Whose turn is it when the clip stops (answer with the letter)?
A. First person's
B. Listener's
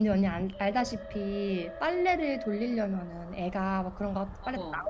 A